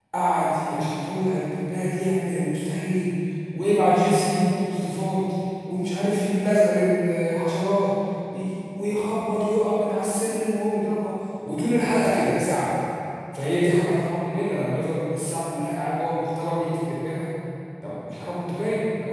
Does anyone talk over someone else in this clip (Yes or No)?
No